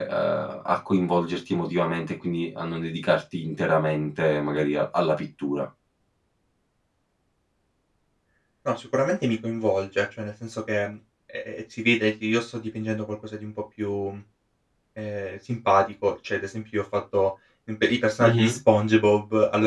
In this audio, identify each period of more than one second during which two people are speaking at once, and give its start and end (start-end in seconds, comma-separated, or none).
none